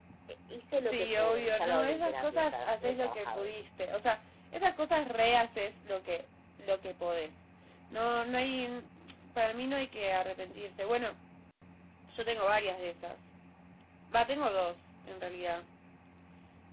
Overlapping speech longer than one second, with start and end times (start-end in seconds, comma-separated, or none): 0.9-3.5